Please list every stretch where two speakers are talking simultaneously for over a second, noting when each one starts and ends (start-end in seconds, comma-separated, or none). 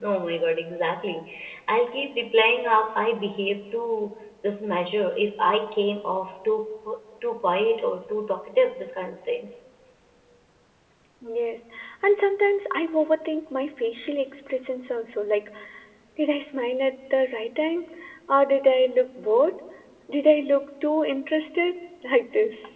none